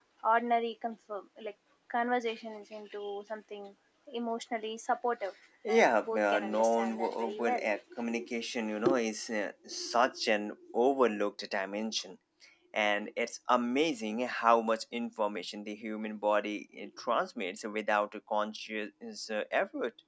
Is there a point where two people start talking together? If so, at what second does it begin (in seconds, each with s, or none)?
5.6 s